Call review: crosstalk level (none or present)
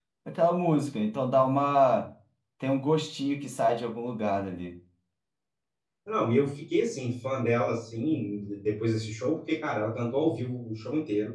none